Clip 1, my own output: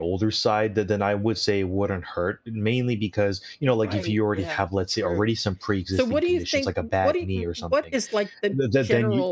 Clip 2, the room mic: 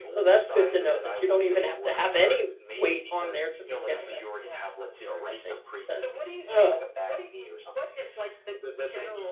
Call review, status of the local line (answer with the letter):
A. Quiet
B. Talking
B